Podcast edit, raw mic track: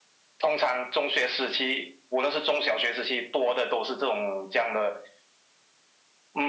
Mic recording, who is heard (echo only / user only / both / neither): echo only